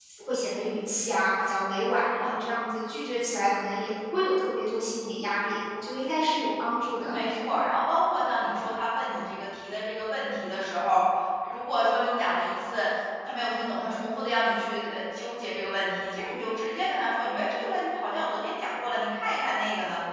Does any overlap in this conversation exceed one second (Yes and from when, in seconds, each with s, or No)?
No